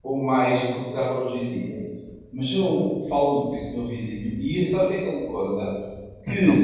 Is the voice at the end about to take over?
No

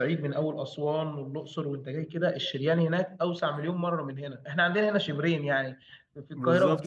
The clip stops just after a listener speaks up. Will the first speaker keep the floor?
Yes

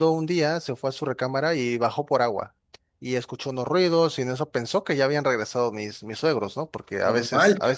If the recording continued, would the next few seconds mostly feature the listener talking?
No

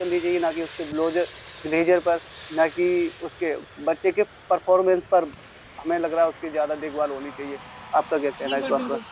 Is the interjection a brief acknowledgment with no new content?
No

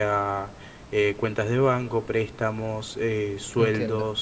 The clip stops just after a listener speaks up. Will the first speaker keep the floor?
No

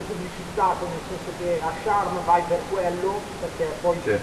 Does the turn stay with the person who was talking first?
Yes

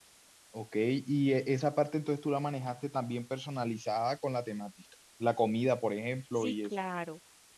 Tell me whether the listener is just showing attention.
No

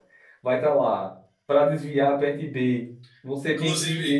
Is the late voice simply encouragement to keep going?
Yes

